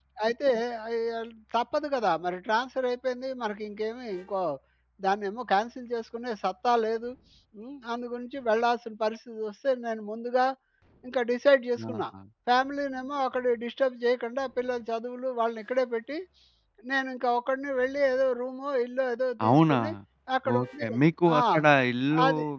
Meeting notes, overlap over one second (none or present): none